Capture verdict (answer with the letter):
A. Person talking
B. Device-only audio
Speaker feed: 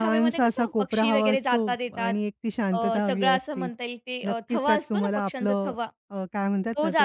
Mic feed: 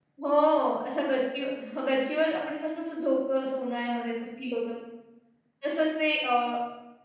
A